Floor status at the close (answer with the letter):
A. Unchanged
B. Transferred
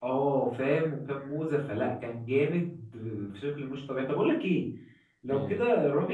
A